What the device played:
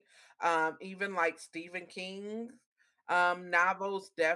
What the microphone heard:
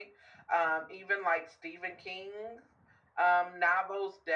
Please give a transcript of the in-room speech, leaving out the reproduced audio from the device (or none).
none